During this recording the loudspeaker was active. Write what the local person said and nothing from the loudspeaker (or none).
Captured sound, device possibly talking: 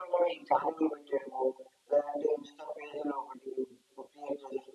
none